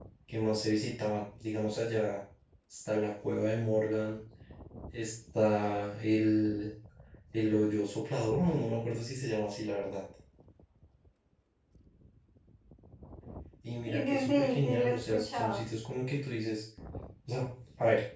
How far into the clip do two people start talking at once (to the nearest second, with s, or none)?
14 s